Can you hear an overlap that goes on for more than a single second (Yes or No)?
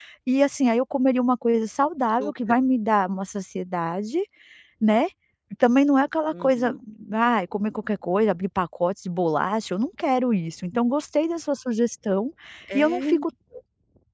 No